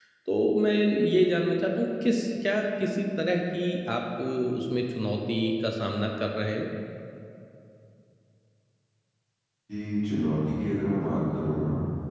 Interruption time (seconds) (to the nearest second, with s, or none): none